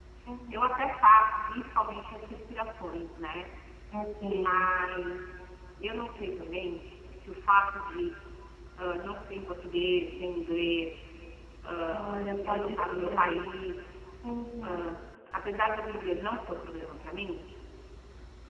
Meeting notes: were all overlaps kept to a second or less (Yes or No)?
No